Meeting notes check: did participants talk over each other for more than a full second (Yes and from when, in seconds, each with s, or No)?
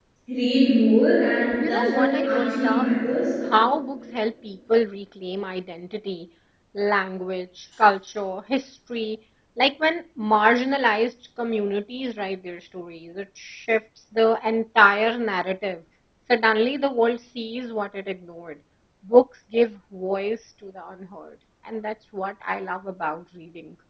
Yes, from 1.6 s